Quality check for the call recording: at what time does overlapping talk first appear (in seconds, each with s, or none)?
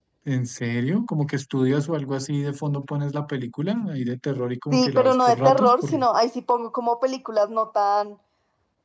4.7 s